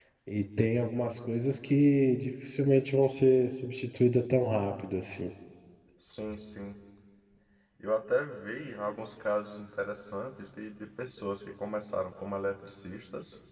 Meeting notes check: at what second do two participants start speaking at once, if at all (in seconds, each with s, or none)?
none